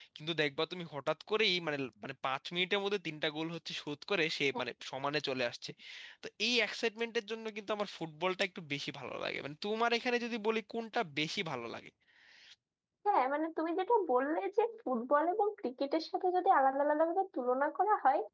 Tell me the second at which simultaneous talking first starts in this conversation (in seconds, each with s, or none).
none